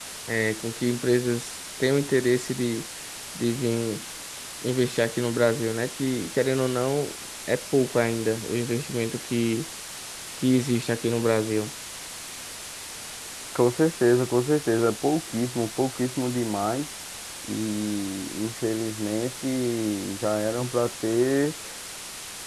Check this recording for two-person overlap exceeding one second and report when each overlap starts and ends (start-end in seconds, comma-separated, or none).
none